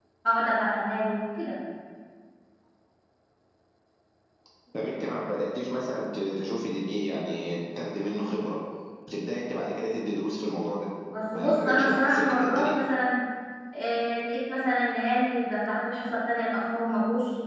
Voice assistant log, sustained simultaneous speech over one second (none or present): present